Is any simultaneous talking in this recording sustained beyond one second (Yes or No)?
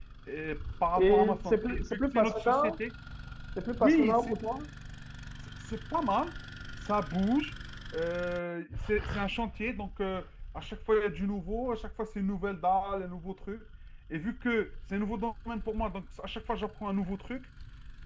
Yes